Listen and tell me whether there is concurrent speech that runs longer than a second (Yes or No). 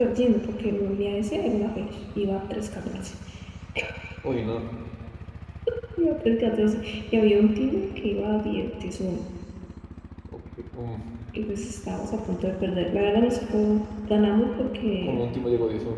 No